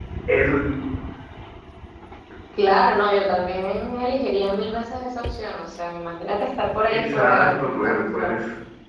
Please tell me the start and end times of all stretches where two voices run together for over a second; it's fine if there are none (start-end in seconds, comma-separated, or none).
6.9-8.3